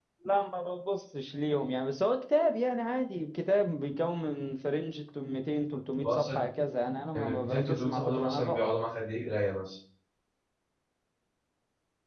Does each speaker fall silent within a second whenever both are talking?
No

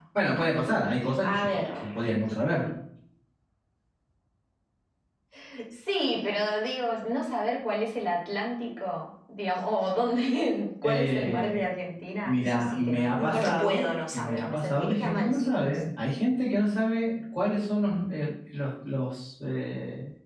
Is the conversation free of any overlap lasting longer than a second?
No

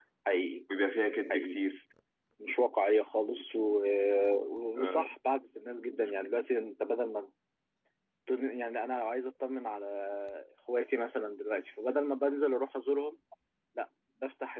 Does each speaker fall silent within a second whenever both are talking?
Yes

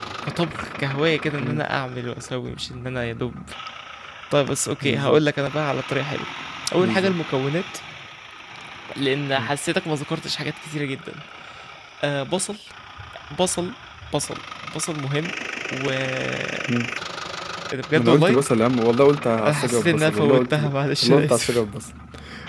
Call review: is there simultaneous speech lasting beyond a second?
Yes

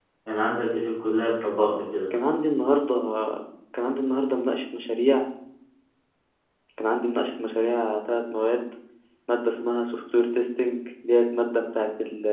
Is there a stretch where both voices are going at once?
No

